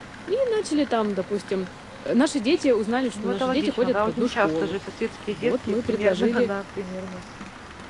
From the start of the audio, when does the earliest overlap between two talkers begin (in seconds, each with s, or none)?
3.1 s